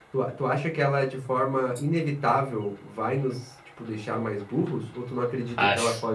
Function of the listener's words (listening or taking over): listening